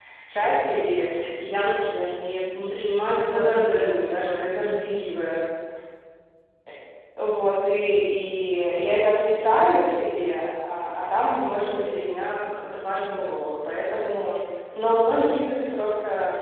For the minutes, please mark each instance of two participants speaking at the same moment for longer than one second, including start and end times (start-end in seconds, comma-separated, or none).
3.0-4.5